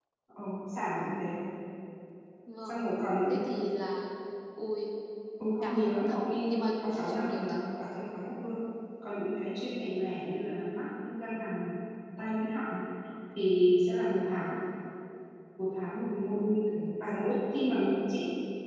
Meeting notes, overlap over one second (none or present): present